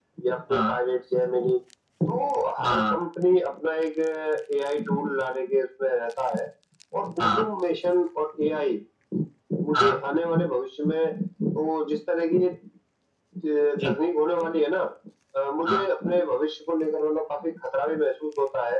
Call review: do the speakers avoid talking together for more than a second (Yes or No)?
Yes